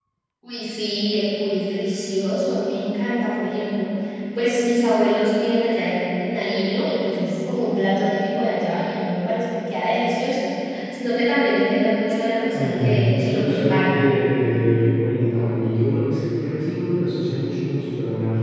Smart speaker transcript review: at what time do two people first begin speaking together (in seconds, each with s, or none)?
12.5 s